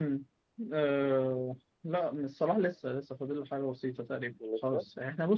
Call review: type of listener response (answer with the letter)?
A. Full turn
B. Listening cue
B